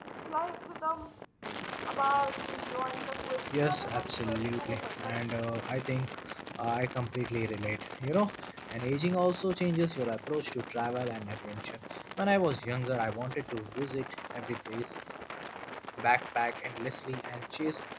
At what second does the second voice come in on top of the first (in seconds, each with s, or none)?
3.5 s